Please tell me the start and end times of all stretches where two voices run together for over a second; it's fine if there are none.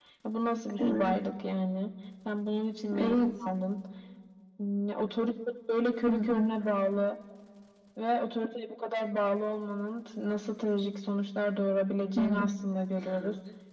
none

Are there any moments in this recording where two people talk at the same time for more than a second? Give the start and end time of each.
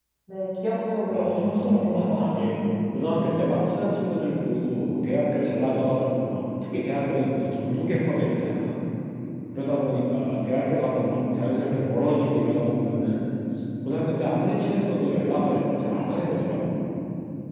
1.1-2.5

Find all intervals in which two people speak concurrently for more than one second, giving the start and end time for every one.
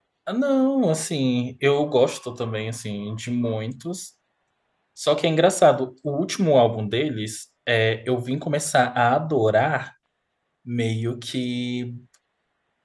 none

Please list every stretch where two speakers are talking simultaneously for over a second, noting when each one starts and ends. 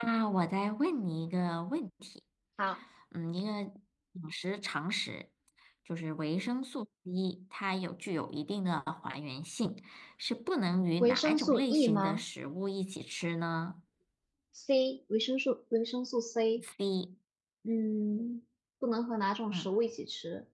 11.0-12.2

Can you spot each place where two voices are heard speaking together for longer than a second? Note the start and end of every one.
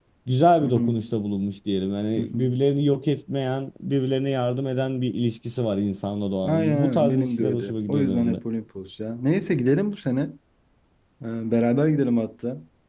6.4-8.4

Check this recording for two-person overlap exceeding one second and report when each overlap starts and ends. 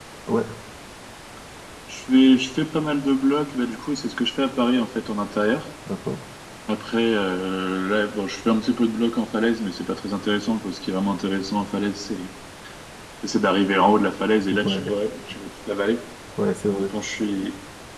none

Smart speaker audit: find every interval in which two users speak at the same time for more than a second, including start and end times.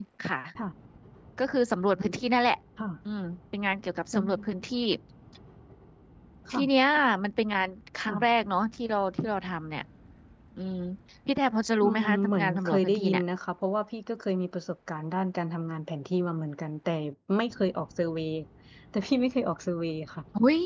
11.8-13.2

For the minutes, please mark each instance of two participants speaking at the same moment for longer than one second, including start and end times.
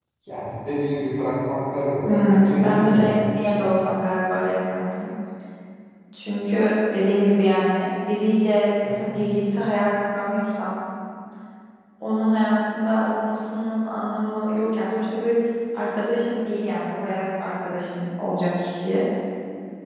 2.0-3.5

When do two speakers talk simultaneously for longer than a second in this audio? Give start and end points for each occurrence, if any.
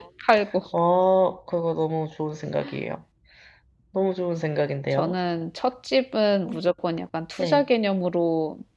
none

